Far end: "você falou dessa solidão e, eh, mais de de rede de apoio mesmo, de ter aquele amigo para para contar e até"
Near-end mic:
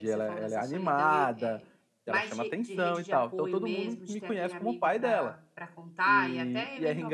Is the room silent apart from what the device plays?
No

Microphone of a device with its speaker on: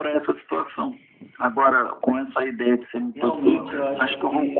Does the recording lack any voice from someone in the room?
No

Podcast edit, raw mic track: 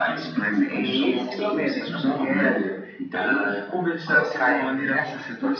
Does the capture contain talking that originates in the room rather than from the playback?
No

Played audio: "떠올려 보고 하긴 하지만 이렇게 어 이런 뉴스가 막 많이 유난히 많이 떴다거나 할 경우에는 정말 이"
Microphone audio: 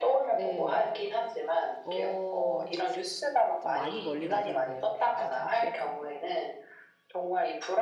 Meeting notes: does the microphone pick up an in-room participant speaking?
Yes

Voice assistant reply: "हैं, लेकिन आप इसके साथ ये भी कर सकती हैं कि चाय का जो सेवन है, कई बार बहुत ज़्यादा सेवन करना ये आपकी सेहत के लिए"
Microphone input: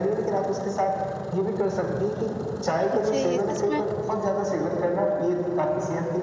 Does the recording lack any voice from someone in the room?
No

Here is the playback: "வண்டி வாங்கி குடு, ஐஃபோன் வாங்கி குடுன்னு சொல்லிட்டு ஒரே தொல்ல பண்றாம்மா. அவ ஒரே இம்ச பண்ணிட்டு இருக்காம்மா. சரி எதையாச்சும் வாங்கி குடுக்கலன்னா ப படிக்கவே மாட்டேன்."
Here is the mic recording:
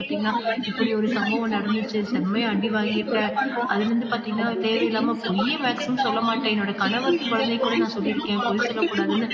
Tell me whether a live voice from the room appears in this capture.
Yes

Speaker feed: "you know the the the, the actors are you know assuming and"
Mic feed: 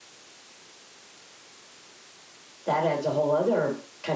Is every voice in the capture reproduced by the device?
No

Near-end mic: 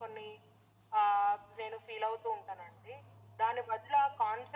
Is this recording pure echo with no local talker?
Yes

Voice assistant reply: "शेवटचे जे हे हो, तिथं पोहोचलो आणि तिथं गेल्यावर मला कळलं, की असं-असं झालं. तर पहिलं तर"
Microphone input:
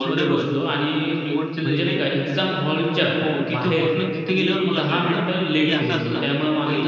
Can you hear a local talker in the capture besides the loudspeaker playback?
Yes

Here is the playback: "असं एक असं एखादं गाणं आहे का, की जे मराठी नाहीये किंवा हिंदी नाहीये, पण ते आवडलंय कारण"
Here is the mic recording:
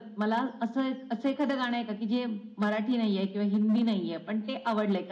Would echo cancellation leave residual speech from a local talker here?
No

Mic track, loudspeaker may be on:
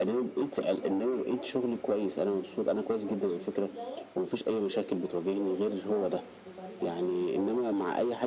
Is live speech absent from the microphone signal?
No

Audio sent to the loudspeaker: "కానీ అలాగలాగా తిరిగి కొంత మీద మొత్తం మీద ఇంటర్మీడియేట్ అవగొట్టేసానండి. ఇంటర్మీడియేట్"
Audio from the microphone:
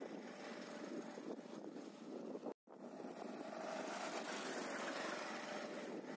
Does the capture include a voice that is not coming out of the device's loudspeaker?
No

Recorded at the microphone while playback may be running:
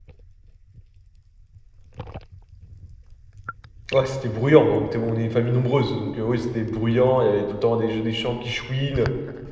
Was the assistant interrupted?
Yes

